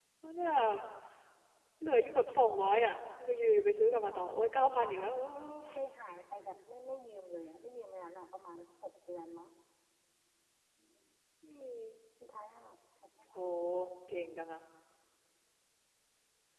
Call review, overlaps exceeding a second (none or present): none